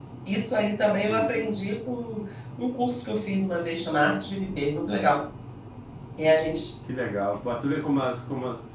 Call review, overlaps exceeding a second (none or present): none